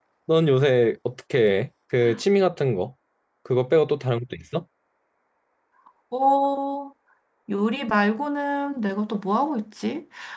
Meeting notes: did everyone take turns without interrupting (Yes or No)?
Yes